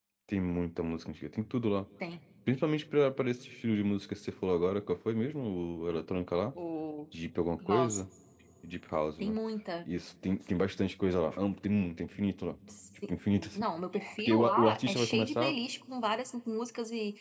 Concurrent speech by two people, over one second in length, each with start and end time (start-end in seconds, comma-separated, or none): 14.2-15.5